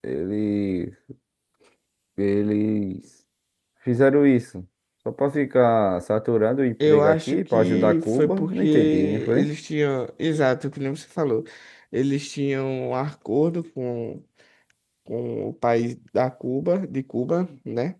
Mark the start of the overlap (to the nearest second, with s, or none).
7 s